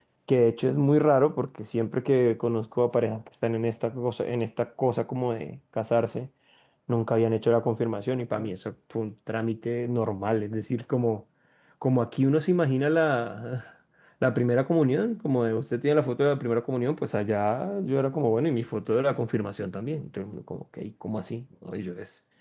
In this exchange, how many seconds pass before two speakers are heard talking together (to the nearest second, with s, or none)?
none